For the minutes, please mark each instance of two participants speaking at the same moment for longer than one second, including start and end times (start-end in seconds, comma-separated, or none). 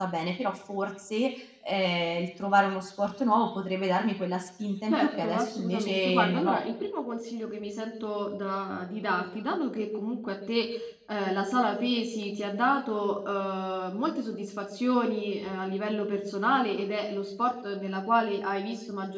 4.9-6.6